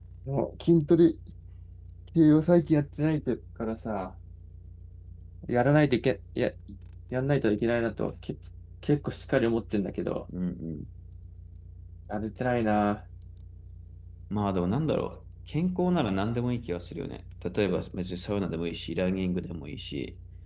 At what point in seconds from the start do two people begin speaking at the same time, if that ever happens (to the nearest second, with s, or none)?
none